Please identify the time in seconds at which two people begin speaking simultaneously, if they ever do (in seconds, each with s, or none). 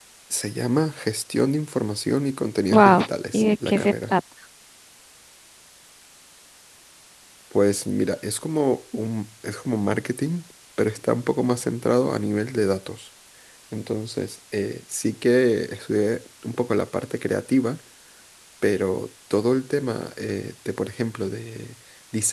2.7 s